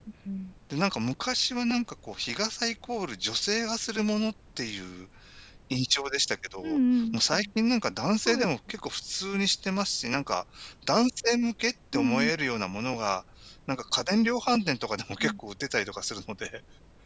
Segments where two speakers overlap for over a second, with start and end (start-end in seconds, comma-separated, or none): none